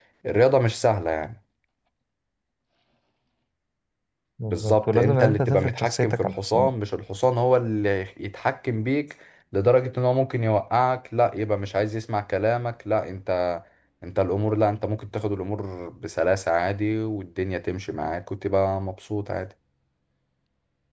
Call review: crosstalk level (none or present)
present